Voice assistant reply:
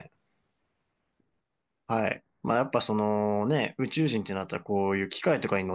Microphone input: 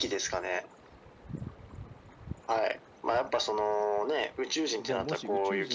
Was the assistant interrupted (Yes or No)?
Yes